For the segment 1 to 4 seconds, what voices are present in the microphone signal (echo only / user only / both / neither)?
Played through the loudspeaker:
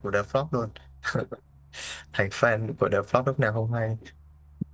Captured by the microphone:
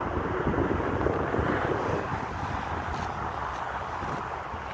neither